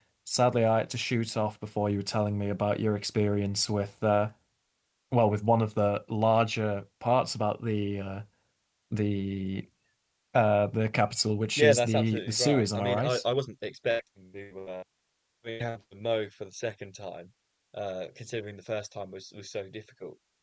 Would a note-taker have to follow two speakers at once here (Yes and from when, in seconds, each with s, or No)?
Yes, from 11.6 s